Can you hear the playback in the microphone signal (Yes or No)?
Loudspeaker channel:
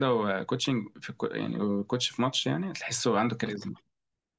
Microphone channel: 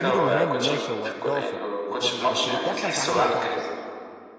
Yes